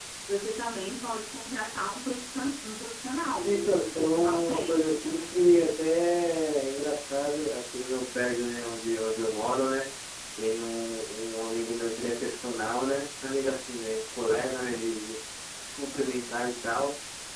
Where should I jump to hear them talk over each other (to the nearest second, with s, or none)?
3 s